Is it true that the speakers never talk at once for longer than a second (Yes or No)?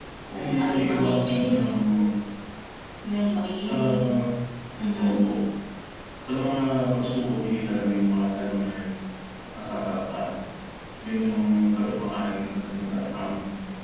No